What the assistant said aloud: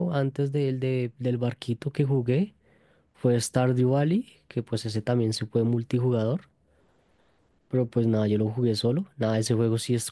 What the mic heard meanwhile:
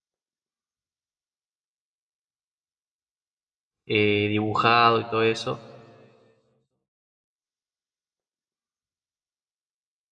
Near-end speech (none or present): present